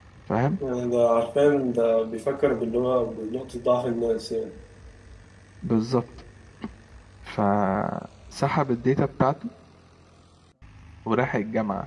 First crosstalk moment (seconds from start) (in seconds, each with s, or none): none